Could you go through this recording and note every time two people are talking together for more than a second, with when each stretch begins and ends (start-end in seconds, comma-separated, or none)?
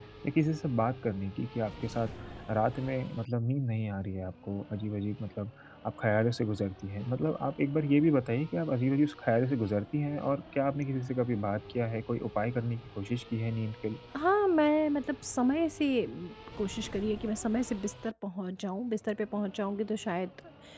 none